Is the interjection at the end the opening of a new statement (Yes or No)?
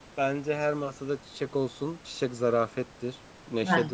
No